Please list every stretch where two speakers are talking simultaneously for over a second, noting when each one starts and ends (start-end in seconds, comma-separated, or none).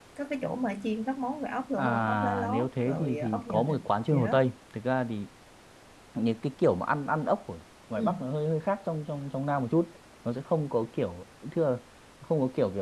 1.8-4.3